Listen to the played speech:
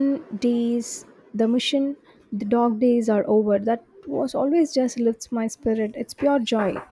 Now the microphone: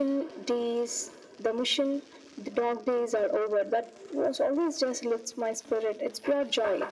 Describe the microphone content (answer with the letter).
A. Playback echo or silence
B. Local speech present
A